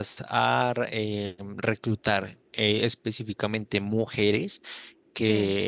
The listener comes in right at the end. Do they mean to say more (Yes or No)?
No